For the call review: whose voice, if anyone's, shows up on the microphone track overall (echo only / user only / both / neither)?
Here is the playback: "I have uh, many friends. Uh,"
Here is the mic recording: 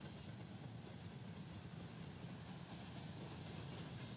neither